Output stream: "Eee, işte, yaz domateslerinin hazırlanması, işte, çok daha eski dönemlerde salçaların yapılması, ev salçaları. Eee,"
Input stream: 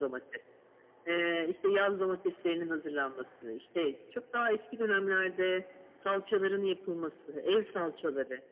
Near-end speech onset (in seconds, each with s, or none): none